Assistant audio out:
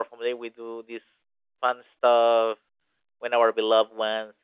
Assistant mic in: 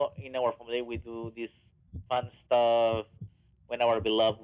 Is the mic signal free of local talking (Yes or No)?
Yes